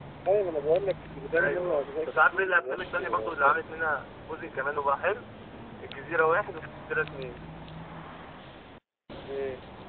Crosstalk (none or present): present